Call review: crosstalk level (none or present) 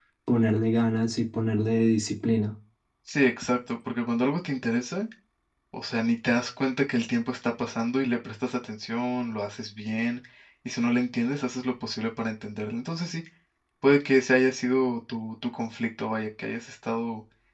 none